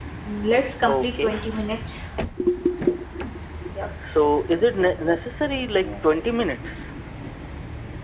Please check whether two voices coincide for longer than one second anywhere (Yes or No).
No